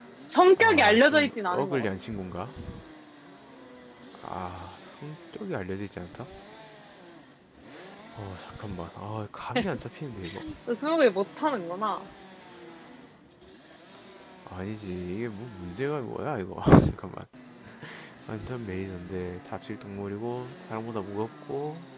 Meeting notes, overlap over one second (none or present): present